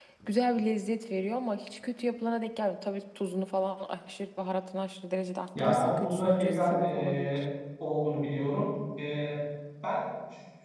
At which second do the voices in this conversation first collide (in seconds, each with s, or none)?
5.5 s